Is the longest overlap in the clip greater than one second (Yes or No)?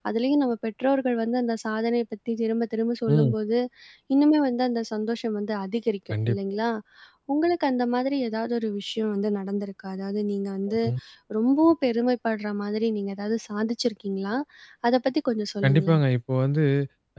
No